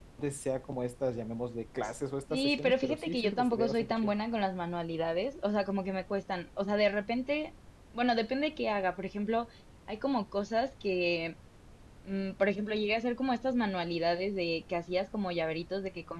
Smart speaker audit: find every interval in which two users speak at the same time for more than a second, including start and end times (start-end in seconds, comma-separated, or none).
2.3-4.1